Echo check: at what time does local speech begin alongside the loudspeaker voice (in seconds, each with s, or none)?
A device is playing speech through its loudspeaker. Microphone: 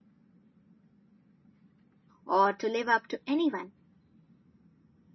2.2 s